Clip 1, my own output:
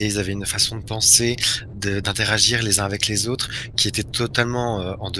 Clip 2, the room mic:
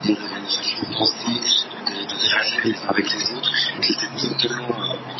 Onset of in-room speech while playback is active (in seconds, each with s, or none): none